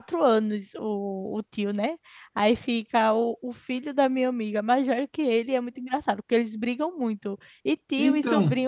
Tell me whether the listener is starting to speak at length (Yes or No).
No